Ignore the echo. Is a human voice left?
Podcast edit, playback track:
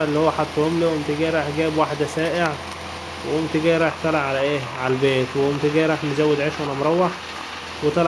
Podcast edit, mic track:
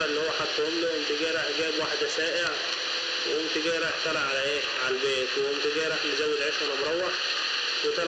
No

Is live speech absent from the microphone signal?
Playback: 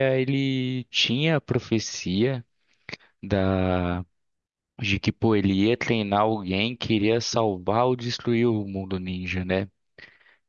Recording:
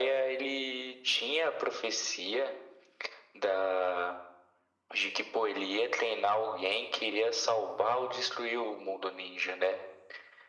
Yes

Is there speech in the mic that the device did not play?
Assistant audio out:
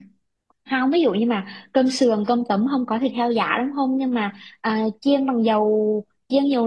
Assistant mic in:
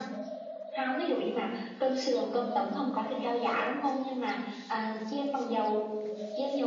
No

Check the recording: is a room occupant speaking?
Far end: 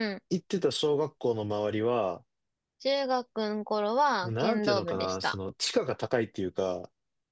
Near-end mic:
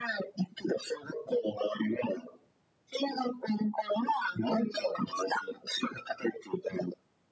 No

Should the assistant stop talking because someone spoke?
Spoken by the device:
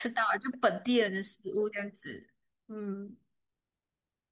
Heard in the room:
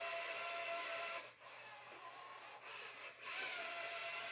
No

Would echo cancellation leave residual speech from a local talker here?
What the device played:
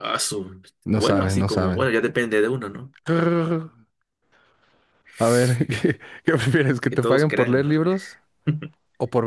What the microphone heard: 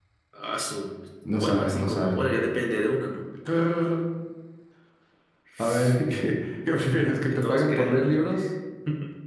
No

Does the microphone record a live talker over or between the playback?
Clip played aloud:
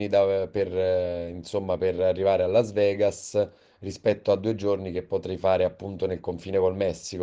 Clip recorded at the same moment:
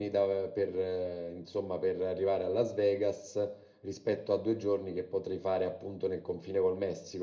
No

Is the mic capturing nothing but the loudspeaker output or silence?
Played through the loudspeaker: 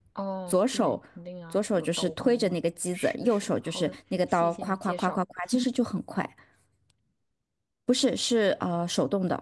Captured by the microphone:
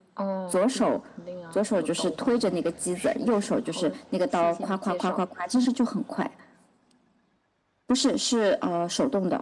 Yes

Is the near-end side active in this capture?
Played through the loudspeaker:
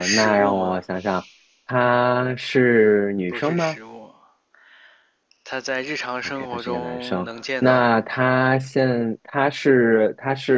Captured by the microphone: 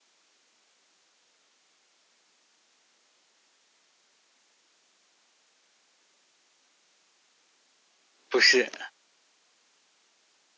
Yes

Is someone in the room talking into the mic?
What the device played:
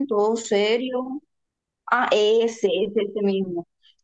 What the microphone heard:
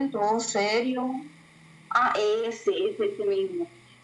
No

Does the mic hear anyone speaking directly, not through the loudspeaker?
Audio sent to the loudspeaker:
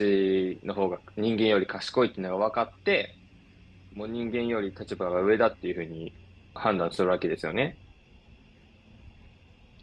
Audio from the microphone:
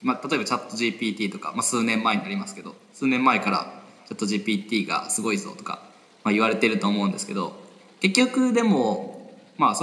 Yes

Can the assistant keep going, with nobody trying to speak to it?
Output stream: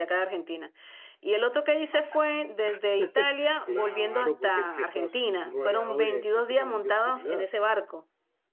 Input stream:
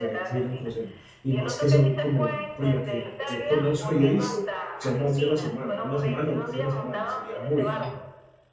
No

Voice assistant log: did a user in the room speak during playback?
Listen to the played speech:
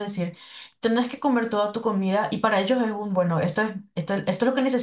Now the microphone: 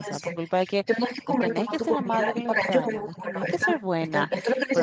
Yes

